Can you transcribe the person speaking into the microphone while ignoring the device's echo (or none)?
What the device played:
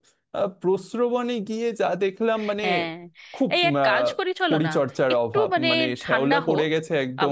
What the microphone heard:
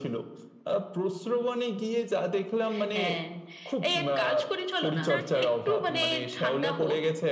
তো যাকগে